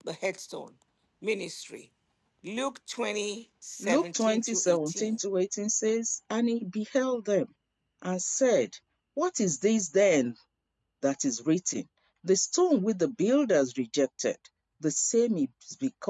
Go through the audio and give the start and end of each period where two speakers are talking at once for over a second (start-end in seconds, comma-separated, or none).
3.8-5.2